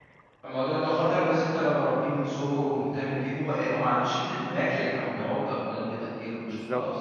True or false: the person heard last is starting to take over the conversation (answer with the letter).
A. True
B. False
B